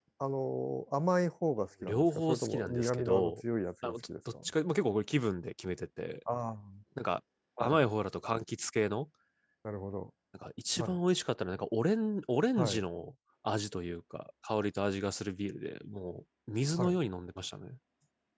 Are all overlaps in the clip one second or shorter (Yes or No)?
No